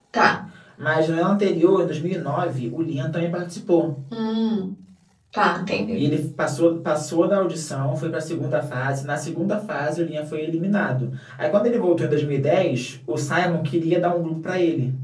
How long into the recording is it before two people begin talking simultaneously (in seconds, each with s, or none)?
none